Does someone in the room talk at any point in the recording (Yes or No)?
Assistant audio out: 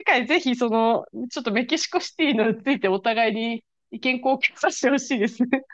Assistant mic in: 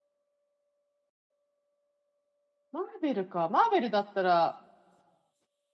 Yes